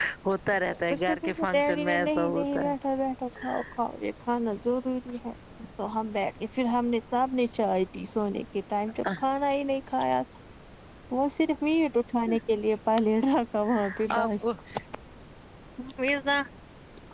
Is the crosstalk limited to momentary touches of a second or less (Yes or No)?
No